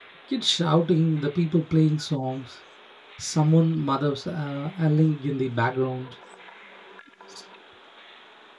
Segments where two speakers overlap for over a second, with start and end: none

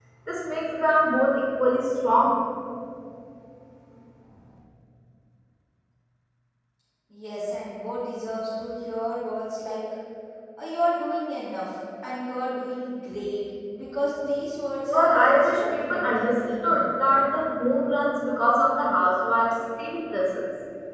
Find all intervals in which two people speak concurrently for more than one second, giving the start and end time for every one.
14.9-16.9

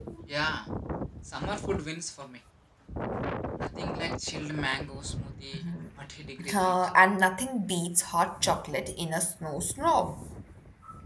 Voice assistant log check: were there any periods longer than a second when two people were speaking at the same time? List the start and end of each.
none

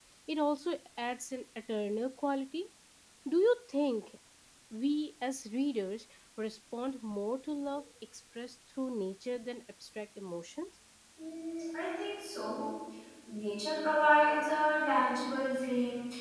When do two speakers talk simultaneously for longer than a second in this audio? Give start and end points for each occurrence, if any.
none

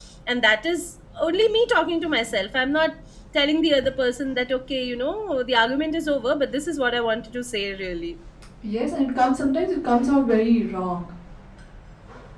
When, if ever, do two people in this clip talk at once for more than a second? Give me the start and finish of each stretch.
none

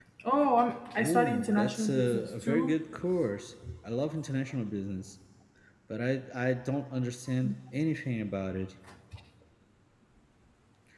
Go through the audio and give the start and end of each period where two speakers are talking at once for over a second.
1.0-2.8

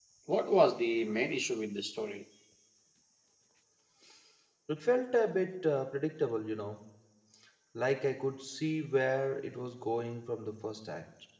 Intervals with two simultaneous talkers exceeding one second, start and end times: none

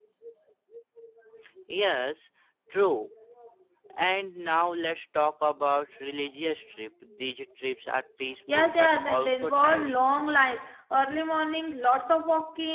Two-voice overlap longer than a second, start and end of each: 8.5-10.1

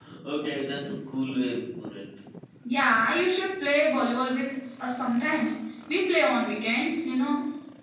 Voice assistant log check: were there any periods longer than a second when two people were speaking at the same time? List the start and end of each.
none

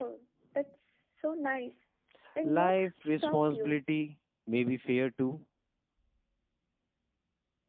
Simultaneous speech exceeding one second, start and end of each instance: 2.4-3.8

